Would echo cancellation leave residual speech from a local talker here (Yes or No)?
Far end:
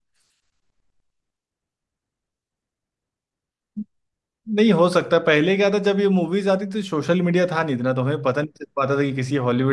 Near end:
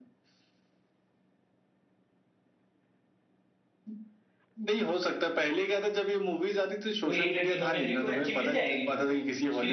Yes